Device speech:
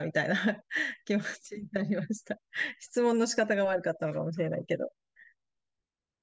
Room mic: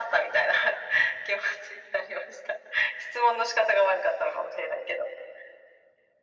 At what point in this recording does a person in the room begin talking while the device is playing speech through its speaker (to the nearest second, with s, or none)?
none